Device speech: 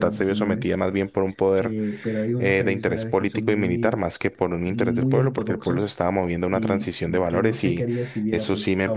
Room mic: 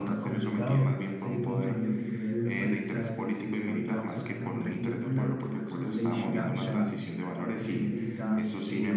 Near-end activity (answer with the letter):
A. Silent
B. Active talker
B